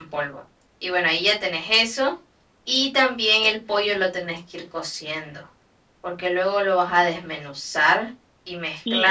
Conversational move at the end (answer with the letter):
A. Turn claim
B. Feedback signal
A